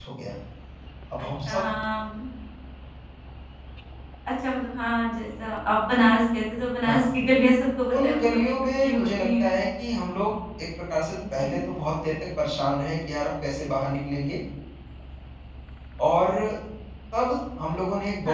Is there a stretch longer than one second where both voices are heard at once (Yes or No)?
Yes